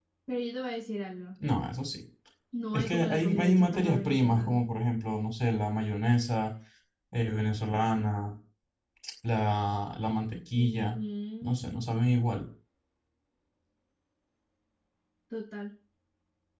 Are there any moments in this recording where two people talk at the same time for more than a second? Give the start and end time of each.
2.7-4.6

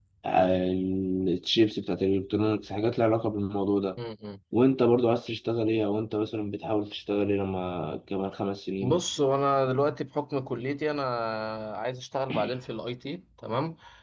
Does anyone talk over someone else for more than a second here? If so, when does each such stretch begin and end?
none

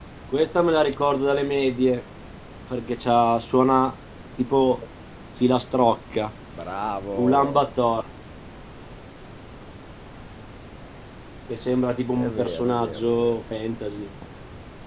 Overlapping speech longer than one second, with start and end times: 12.2-13.4

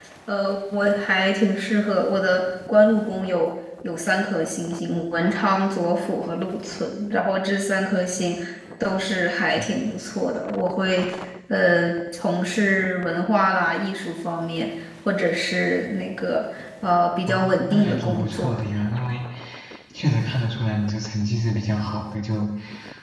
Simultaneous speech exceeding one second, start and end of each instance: 17.3-18.6

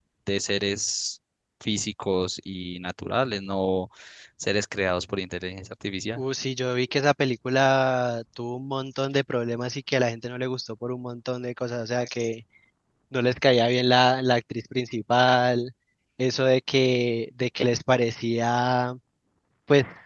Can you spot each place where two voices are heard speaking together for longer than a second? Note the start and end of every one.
none

